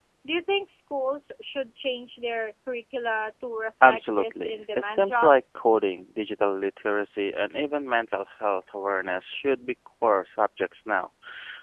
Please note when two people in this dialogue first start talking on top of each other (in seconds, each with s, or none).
3.8 s